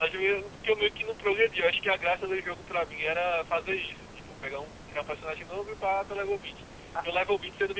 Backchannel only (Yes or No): Yes